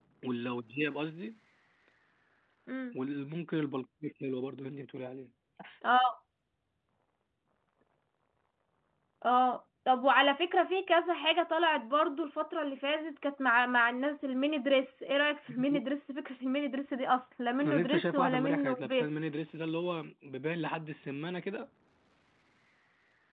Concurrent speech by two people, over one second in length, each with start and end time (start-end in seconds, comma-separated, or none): 17.6-19.1